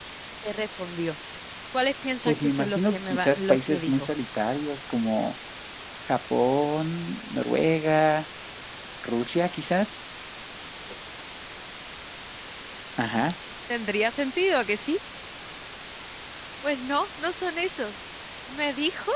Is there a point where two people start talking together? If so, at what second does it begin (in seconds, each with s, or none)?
2.3 s